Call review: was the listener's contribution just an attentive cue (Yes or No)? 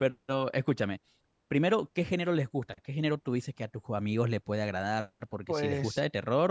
Yes